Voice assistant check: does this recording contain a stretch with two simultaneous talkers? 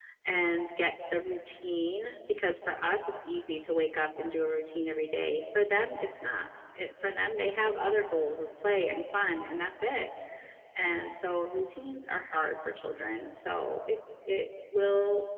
No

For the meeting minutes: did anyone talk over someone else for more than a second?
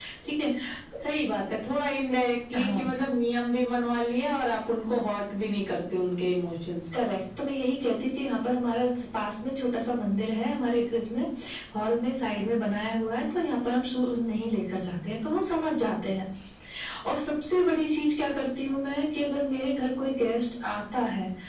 No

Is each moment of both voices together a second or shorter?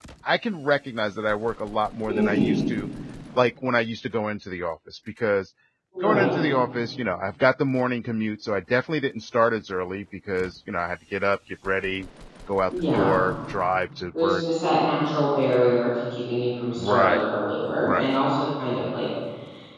Yes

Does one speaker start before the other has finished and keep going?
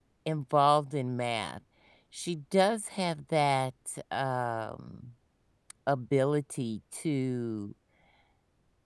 No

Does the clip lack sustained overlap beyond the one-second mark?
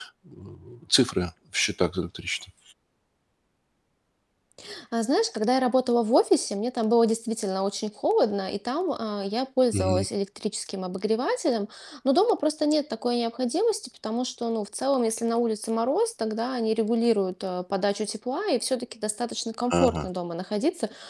Yes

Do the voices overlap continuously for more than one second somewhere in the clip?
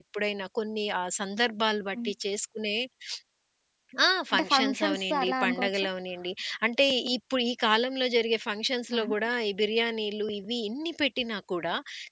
Yes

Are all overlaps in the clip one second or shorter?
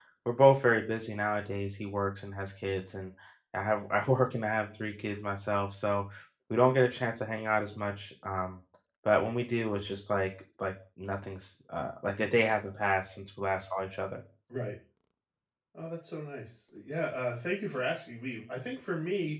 Yes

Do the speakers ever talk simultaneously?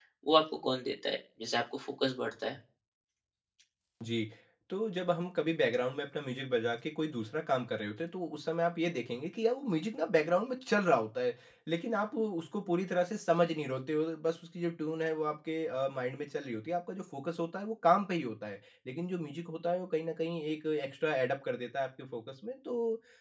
No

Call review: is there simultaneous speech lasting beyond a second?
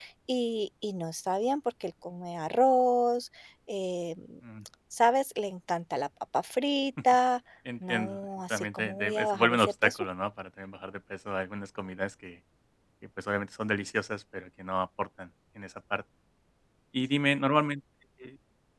Yes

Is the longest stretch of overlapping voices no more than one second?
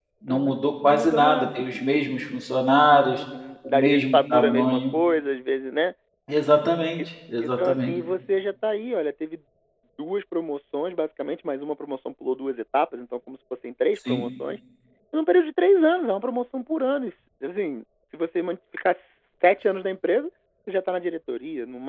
No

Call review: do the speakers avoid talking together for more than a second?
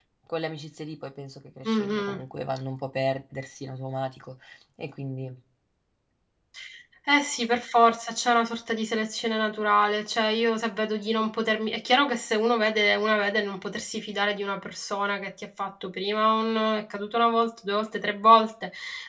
Yes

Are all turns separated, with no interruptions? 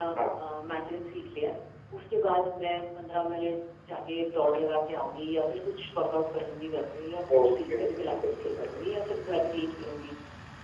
No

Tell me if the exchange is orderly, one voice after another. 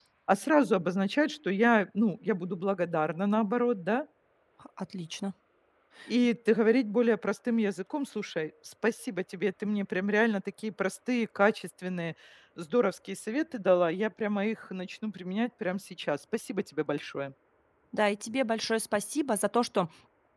Yes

